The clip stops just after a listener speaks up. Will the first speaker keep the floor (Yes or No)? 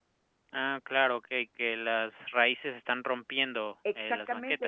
No